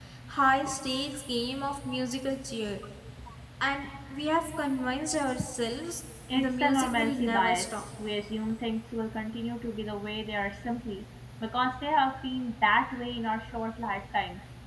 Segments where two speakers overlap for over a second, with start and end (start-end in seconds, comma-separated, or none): 6.3-7.7